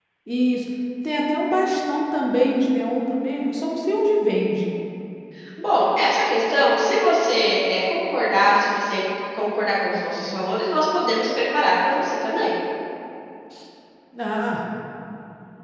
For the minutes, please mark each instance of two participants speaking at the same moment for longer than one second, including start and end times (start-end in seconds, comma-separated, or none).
none